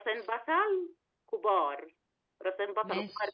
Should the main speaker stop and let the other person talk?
No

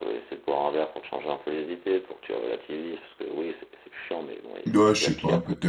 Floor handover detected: Yes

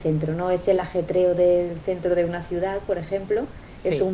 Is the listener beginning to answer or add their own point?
No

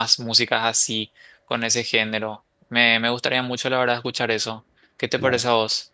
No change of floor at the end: No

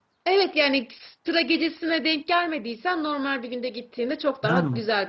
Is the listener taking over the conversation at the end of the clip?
No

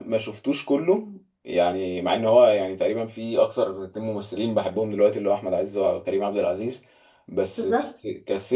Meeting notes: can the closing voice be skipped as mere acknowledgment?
Yes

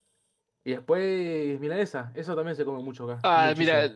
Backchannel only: No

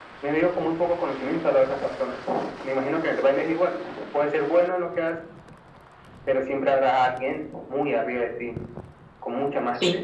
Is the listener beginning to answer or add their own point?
Yes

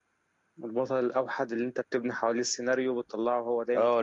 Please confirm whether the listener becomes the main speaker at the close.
Yes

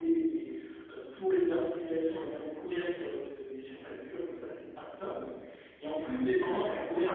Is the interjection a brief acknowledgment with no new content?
Yes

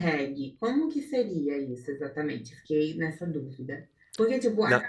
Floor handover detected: No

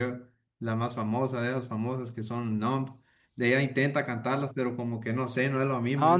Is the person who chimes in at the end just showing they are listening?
No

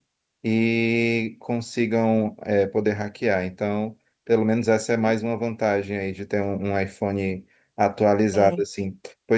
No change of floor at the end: Yes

